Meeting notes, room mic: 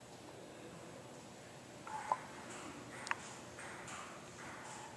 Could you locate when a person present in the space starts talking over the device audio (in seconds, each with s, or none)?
none